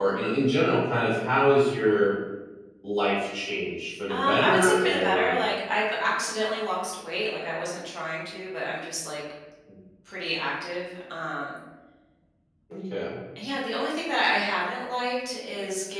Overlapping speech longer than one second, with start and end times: 4.1-5.3

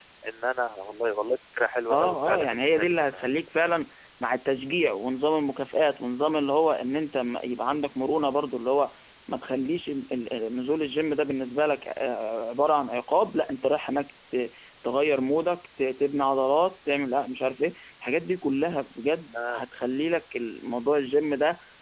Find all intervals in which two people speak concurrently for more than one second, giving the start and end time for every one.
1.9-3.3

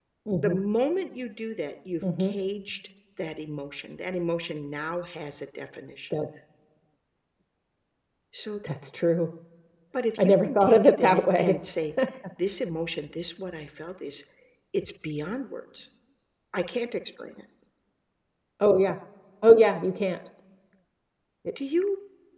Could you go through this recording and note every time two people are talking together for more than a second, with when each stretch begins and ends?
10.2-11.5

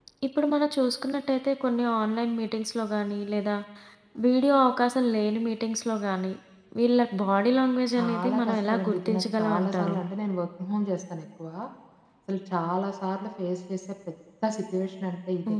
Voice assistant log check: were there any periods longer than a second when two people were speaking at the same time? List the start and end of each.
8.0-10.0

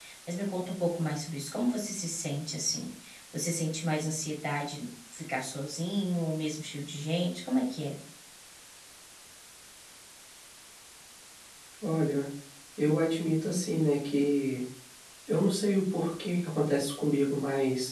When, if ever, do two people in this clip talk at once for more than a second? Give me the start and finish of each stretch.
none

